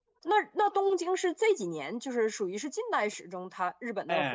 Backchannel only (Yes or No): No